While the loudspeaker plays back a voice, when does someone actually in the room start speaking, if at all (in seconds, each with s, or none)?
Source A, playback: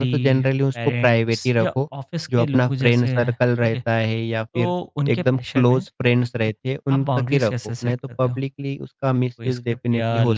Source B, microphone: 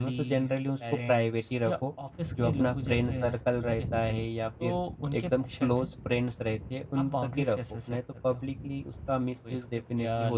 none